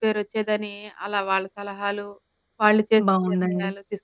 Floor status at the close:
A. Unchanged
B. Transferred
B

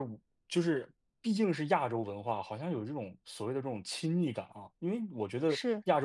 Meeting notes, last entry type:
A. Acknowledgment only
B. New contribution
A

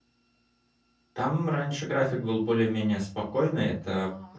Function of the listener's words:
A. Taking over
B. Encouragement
B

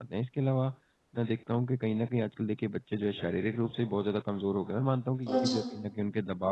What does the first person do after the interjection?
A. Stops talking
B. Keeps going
B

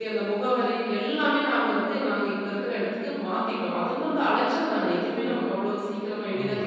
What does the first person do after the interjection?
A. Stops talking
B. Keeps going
A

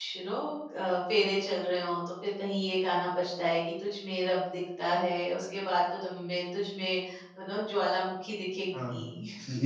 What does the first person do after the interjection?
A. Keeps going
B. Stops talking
B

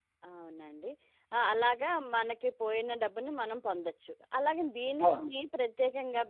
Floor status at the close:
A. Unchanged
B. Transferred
A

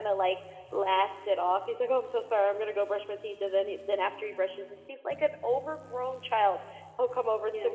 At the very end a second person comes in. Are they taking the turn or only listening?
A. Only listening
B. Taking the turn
A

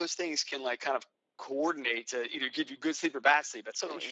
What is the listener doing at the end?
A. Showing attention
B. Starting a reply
B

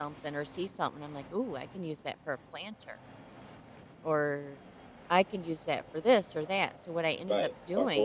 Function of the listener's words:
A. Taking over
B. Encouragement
A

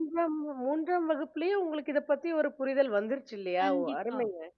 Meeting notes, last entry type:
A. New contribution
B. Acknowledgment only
A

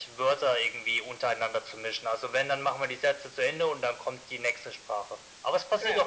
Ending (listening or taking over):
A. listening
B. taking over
A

